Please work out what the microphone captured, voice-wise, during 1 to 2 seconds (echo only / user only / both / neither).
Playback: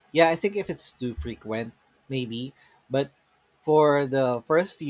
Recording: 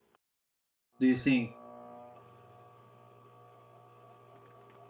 user only